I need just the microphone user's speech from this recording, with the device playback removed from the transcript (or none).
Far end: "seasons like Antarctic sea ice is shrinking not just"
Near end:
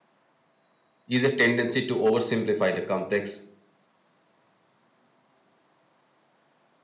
is a tendency to oversimplify the complex